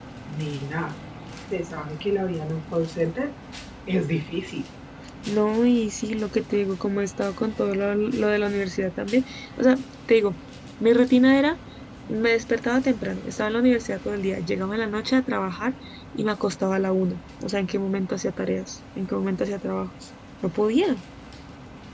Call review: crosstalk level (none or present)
none